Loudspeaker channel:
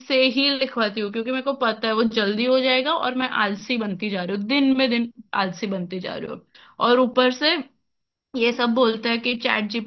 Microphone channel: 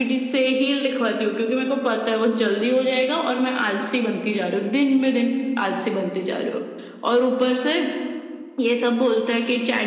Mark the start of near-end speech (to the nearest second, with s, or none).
none